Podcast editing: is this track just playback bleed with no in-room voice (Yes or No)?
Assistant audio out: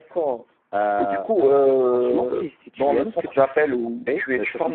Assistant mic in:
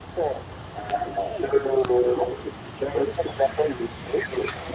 Yes